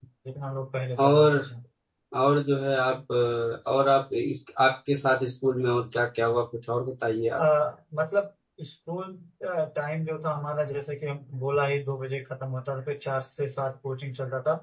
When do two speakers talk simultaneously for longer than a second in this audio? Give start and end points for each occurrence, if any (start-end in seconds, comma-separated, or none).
none